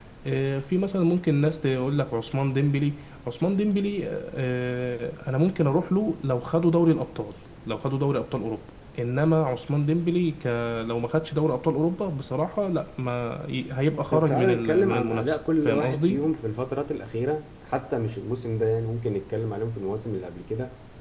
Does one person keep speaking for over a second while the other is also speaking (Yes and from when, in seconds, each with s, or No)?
Yes, from 14.1 s